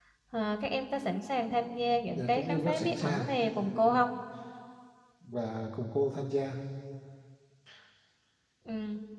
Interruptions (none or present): present